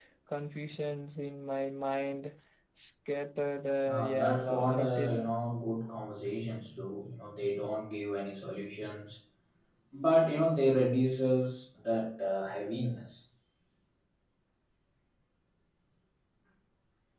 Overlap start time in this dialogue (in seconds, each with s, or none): 3.8 s